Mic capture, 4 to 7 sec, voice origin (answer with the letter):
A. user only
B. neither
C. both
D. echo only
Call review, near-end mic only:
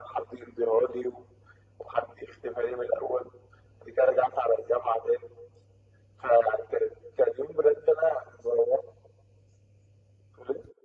D